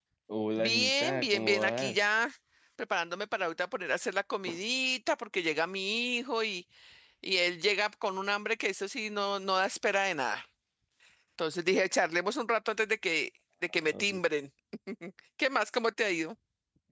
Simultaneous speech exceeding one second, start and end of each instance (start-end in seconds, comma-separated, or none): 0.6-2.0